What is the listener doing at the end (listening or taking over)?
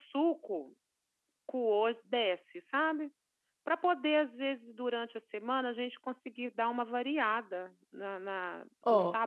taking over